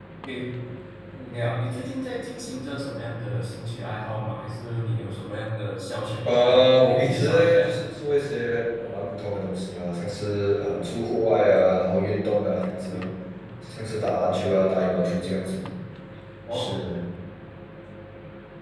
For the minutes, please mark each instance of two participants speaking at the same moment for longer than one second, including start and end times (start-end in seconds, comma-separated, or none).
6.2-7.6